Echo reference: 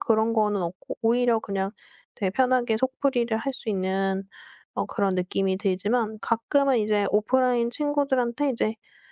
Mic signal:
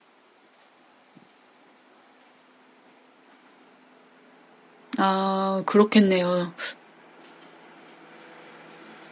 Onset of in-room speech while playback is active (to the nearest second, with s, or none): 5 s